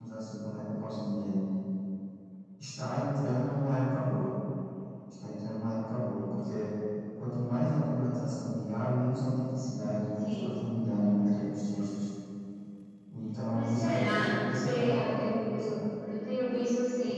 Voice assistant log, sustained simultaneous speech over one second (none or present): present